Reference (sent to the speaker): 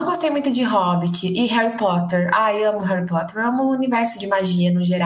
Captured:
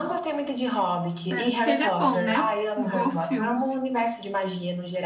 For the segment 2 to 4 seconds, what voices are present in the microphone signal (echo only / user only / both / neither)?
both